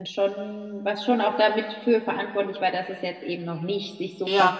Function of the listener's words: taking over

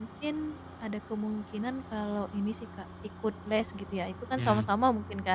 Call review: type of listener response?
listening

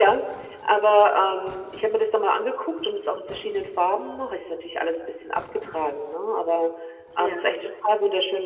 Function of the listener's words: listening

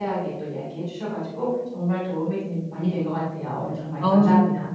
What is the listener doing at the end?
taking over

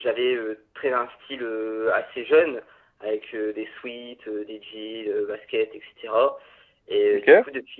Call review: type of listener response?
listening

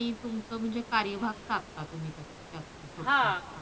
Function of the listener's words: taking over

